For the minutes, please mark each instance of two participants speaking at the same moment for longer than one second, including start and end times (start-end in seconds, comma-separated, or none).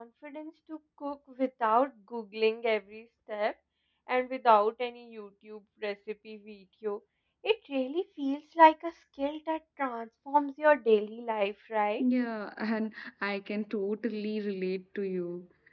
none